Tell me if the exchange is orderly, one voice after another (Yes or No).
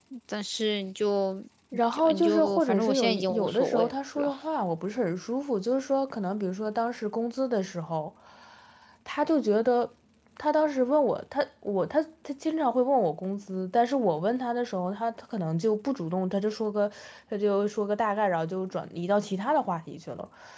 No